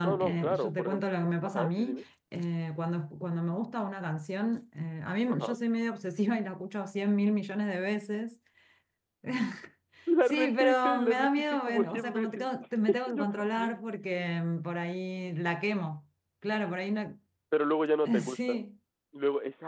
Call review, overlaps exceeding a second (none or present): present